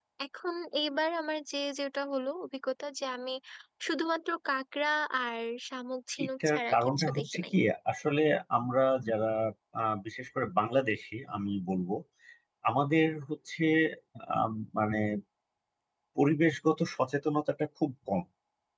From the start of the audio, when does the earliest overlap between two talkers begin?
6.2 s

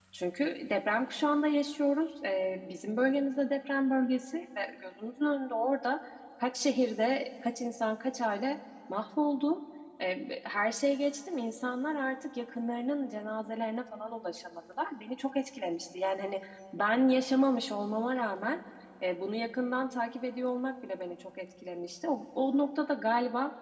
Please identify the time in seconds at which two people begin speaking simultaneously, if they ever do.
none

